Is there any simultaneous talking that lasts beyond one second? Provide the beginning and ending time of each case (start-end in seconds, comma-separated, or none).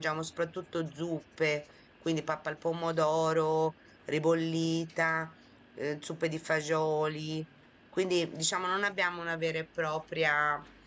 none